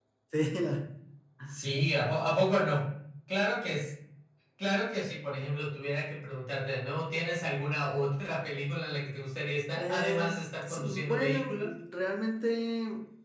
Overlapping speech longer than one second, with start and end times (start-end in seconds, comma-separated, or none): 9.8-11.7